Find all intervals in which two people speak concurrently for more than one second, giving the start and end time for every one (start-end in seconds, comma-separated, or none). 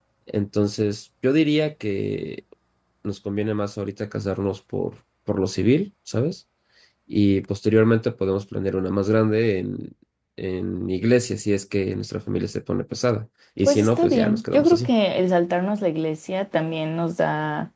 13.6-14.9